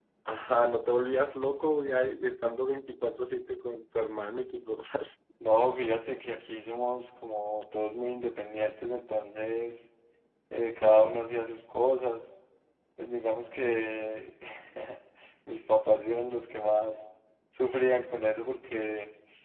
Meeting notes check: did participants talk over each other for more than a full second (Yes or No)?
No